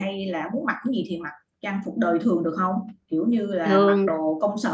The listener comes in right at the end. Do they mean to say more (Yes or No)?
No